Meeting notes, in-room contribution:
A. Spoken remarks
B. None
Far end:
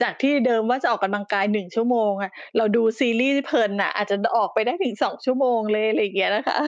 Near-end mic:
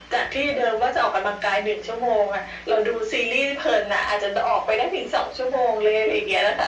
B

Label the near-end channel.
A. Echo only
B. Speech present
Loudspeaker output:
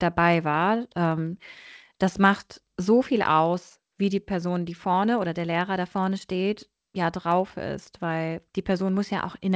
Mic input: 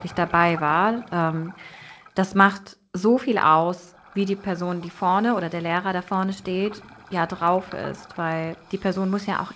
A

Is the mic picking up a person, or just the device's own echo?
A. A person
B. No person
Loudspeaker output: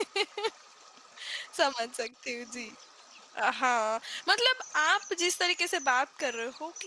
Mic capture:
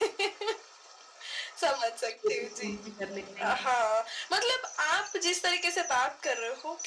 A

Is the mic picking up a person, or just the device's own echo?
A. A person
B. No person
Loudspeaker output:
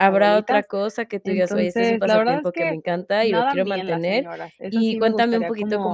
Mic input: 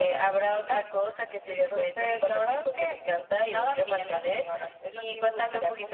B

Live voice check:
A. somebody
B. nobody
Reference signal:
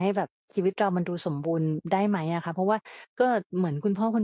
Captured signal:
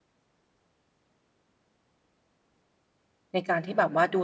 A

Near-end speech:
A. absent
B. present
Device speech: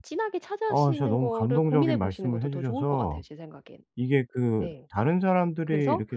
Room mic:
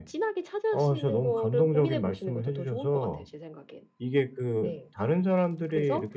A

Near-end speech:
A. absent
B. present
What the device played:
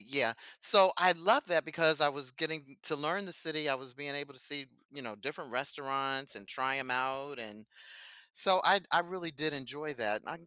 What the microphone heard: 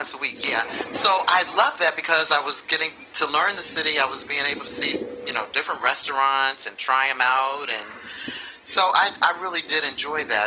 A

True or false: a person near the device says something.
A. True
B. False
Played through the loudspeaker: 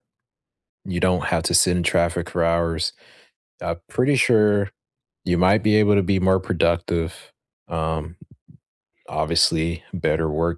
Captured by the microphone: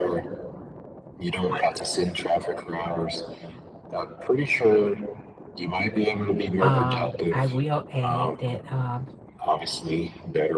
A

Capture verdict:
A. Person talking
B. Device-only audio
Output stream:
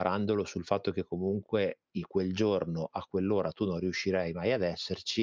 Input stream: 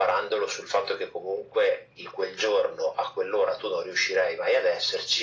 B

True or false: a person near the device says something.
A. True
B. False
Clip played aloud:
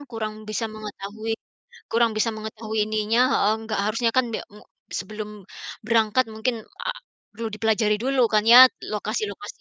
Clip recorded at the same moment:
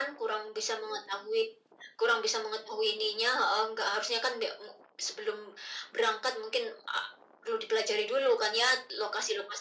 B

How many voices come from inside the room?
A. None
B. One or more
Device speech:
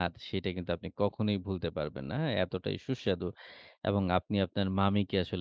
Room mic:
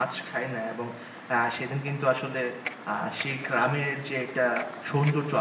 B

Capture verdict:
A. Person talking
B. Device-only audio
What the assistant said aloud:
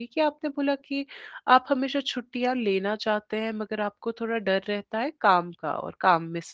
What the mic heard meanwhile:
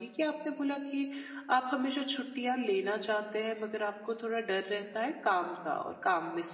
B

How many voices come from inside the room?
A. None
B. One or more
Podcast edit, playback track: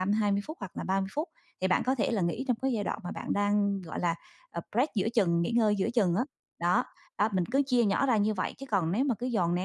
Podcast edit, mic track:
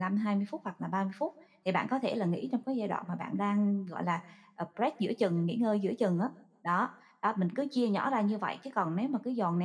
A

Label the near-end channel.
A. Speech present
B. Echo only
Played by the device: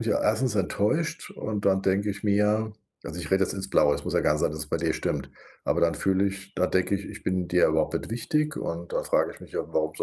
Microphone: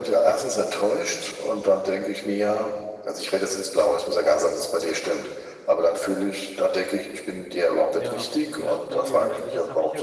A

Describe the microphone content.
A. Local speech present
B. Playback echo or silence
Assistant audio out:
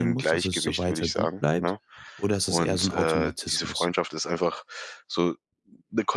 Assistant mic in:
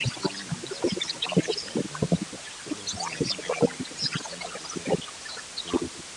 B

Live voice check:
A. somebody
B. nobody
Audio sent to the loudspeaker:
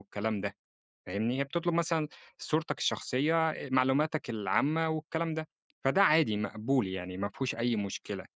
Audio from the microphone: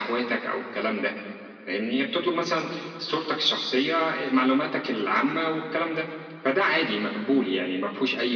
B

